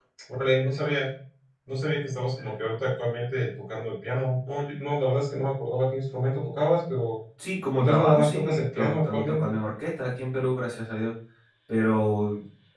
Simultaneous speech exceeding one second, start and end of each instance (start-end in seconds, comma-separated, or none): 7.7-9.5